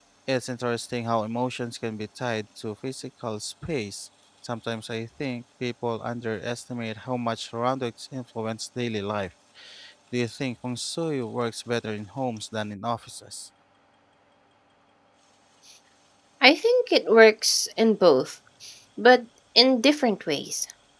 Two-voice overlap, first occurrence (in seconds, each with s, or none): none